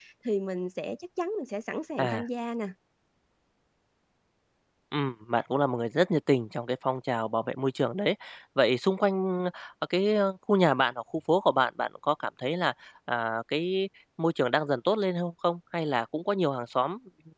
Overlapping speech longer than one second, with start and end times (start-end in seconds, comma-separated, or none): none